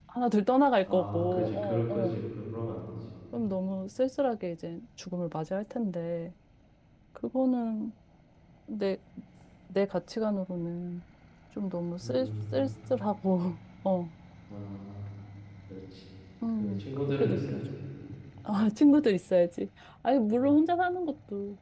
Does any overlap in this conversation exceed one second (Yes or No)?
Yes